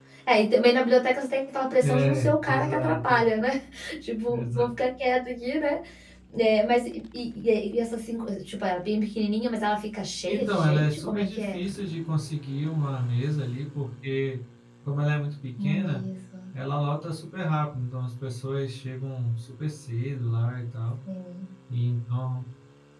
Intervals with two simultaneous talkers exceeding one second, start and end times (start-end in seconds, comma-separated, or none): 1.8-3.2, 10.3-11.6